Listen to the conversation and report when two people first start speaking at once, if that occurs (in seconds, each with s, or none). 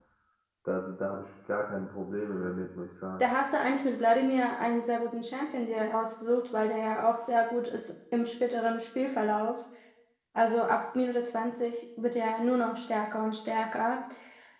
none